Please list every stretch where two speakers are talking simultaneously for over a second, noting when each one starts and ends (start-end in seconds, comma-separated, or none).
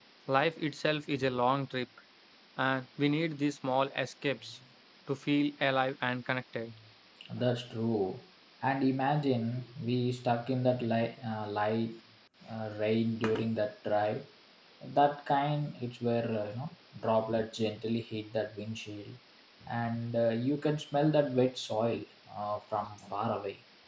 none